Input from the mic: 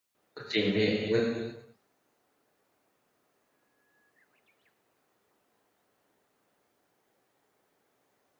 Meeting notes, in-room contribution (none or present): present